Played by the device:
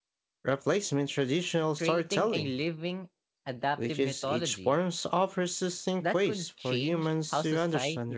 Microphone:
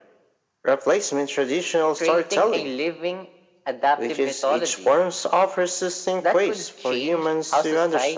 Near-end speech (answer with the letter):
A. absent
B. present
A